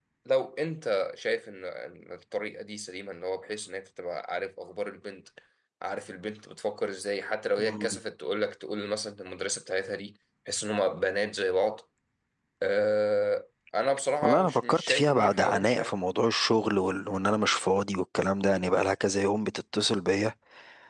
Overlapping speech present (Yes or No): Yes